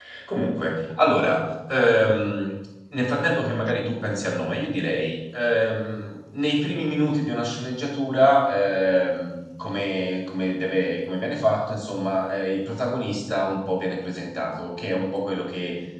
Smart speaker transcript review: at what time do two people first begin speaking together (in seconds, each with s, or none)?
none